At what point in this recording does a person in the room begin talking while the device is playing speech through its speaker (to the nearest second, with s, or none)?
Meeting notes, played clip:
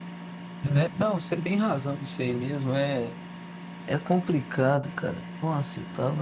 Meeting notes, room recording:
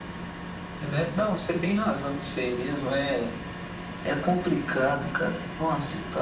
none